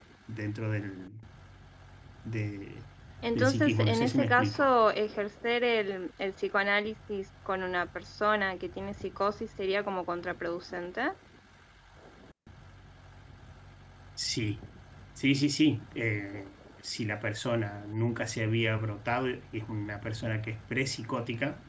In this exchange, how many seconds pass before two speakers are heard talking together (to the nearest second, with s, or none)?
3 s